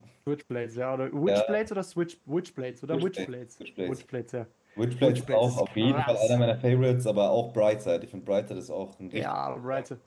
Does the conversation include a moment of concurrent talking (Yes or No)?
Yes